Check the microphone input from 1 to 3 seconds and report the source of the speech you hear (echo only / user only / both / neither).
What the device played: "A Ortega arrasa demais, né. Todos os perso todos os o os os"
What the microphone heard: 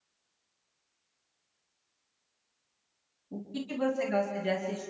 neither